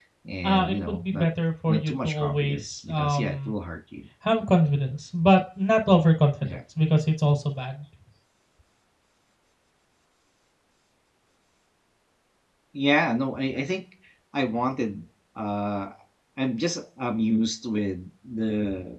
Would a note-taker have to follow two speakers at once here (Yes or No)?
Yes